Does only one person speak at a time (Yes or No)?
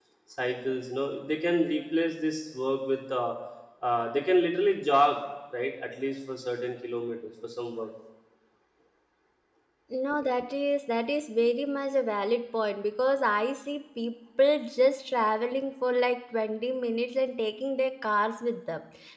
Yes